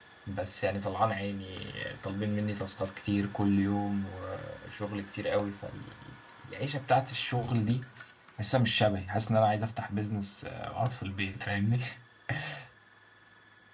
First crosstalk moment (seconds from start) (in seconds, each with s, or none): none